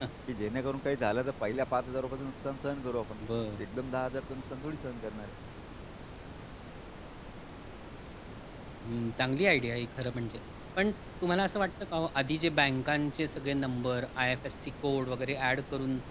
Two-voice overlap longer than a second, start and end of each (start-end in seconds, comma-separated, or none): none